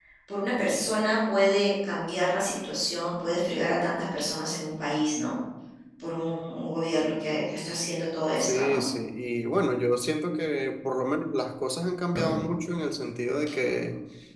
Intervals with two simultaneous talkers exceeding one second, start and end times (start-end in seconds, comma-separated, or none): none